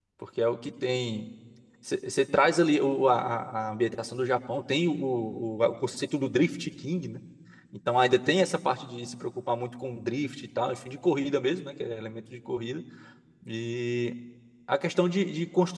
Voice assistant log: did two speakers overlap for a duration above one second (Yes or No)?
No